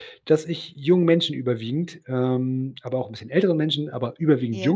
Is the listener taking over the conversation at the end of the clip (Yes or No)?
No